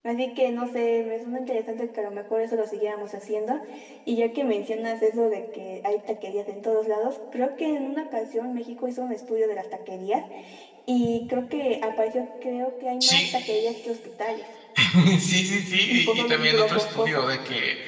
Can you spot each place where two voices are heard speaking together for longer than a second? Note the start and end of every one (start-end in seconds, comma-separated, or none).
15.9-17.2